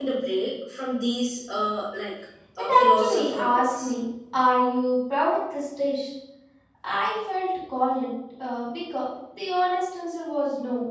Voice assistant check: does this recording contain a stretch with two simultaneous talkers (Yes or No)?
Yes